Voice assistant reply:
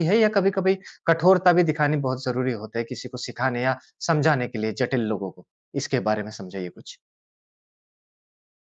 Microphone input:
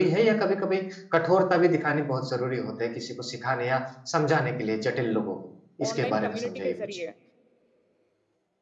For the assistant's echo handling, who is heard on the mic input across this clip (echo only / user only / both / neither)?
both